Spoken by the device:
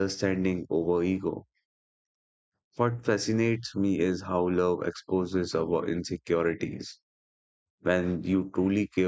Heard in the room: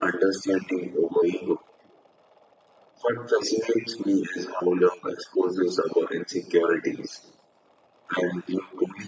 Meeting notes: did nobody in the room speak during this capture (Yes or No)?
Yes